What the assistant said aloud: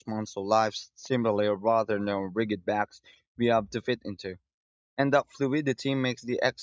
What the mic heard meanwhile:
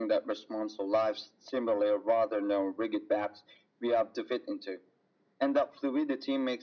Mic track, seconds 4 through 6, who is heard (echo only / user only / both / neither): echo only